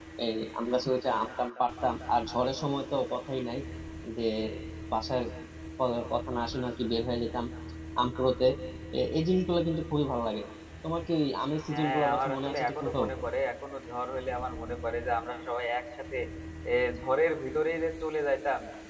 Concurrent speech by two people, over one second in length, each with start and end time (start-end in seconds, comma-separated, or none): 11.7-13.0